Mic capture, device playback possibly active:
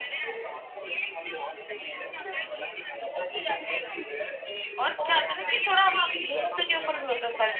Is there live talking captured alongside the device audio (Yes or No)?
Yes